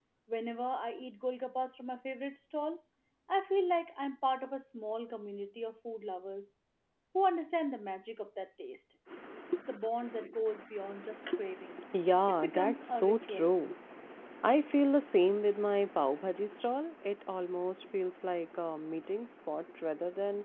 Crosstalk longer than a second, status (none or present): present